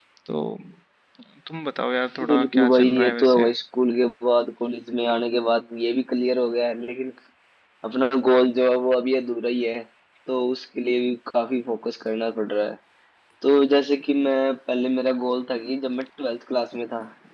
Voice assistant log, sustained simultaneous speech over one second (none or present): present